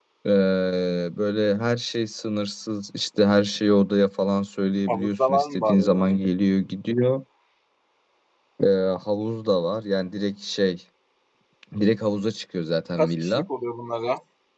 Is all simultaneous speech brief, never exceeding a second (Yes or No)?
No